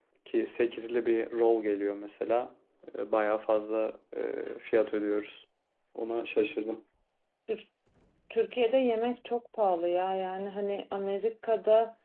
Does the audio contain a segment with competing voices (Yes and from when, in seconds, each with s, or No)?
No